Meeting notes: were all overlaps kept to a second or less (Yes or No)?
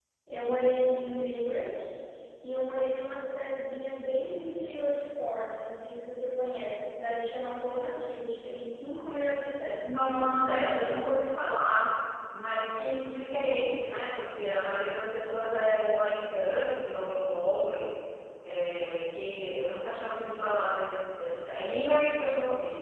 No